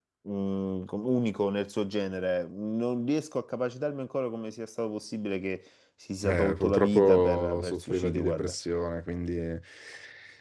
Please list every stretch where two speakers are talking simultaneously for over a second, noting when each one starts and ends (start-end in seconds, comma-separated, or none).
6.2-8.5